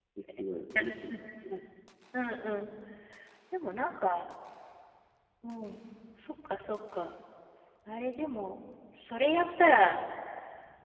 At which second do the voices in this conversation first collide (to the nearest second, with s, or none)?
none